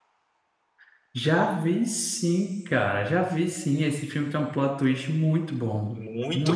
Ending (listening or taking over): taking over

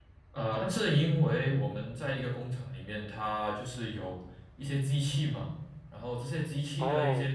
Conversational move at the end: listening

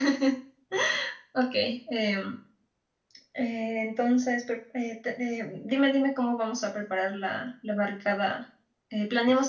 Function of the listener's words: listening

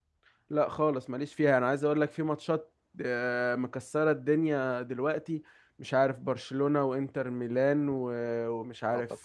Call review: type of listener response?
listening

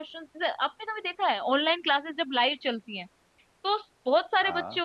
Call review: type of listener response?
listening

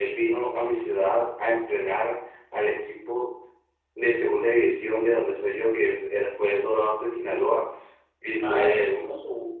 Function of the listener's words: taking over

